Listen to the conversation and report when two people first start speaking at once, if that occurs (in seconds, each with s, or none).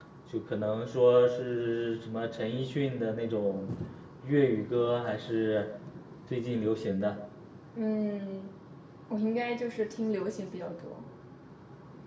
none